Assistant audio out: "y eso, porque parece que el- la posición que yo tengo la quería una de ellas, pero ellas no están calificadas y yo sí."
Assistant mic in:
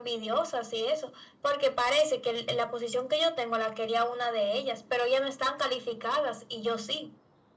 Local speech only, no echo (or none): none